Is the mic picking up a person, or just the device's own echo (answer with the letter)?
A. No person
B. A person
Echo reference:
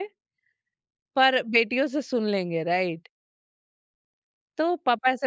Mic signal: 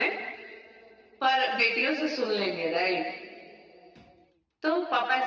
A